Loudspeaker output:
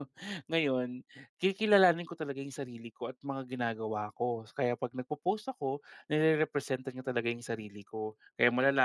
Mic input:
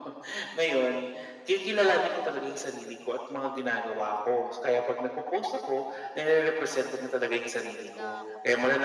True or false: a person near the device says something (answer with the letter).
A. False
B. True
B